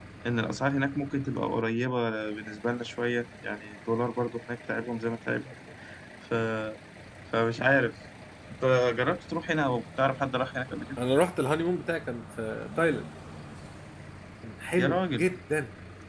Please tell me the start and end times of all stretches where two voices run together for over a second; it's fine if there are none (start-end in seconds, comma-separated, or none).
none